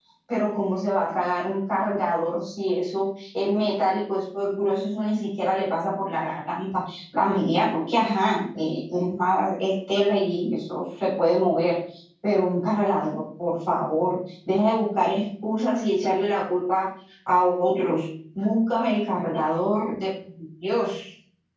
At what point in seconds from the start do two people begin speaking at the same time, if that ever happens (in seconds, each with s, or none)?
none